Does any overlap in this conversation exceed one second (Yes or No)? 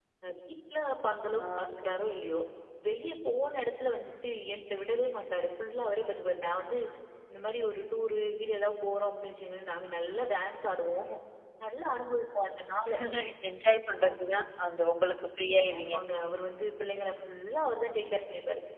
No